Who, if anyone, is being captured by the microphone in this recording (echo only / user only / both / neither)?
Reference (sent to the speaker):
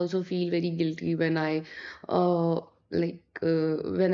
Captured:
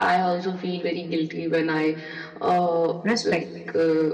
both